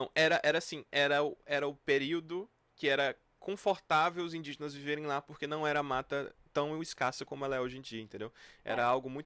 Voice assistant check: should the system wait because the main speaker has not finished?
Yes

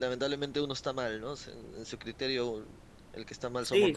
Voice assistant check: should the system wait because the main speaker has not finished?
No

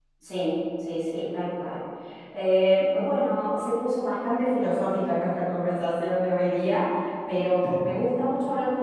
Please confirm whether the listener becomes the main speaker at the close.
No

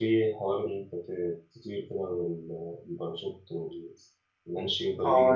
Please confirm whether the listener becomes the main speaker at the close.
Yes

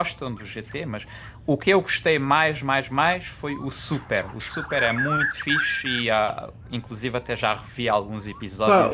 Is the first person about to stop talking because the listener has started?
Yes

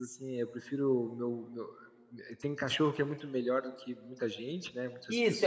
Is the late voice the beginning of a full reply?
Yes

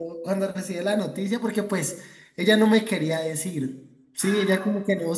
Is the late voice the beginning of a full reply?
No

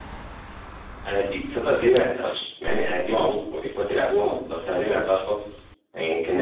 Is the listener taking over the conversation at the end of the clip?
Yes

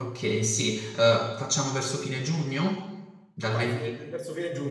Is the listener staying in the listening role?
No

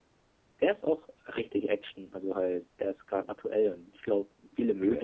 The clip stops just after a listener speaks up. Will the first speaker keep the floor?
Yes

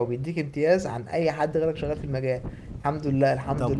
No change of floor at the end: Yes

